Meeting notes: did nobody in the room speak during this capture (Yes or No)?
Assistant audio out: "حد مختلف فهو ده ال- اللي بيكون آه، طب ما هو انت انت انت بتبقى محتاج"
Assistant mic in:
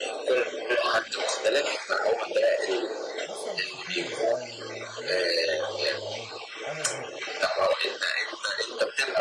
No